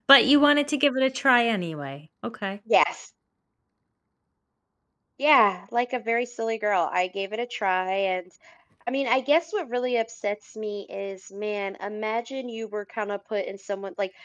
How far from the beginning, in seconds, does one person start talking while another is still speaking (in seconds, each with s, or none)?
none